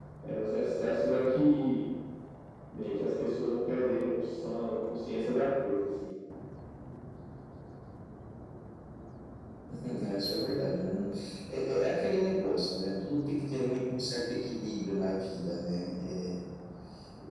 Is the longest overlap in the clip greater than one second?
No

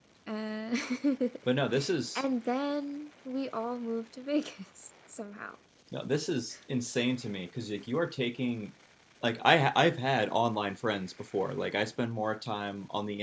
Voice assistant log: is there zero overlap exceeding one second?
Yes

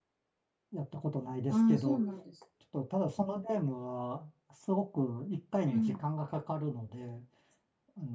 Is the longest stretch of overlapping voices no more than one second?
Yes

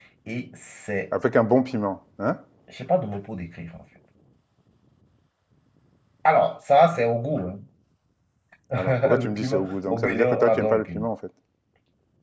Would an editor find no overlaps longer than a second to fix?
No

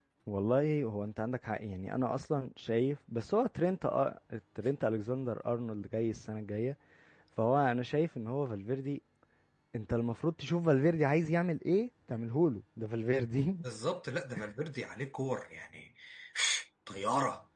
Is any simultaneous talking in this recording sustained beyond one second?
No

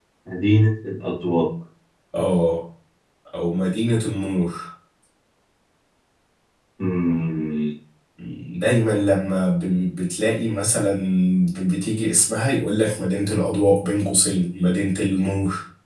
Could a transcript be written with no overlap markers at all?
Yes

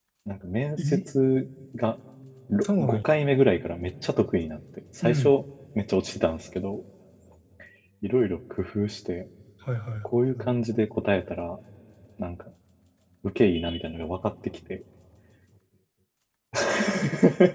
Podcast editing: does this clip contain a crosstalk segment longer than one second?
No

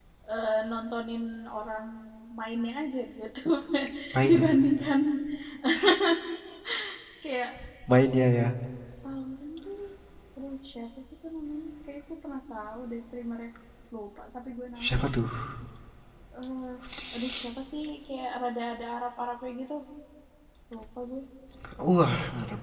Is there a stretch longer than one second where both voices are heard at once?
No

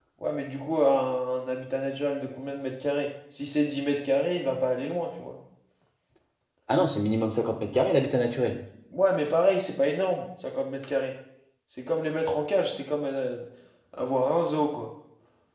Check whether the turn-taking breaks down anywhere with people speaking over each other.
No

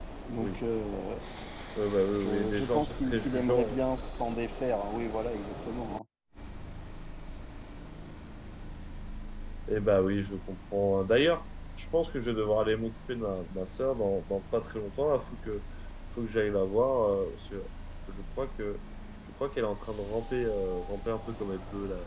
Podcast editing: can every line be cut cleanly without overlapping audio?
No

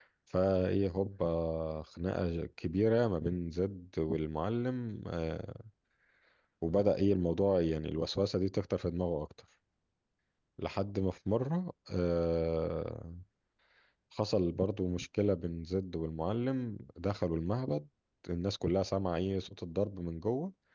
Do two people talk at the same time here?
No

